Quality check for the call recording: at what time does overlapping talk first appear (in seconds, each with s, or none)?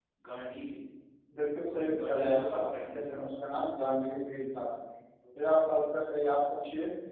1.7 s